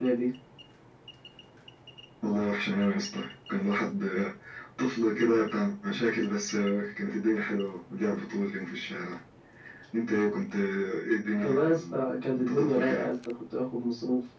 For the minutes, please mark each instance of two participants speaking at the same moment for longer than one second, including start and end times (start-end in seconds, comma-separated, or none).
11.4-13.1